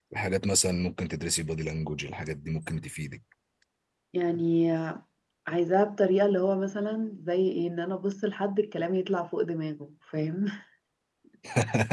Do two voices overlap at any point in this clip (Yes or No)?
No